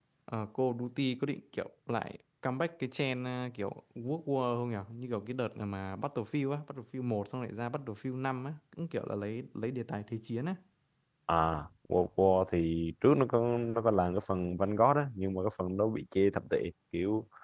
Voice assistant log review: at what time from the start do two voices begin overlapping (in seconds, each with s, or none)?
none